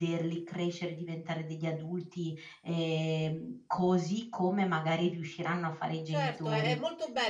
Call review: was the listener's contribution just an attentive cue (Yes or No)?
No